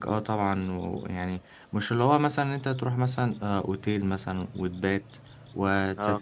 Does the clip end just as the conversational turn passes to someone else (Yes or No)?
No